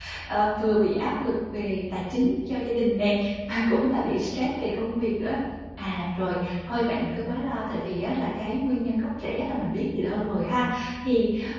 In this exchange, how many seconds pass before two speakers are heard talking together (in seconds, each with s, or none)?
none